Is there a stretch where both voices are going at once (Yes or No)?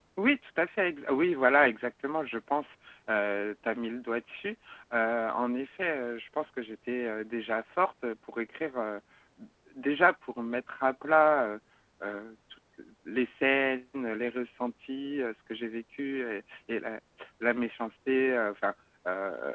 No